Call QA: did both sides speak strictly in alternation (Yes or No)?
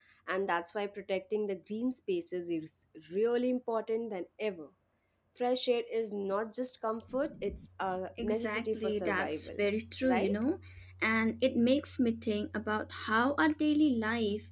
No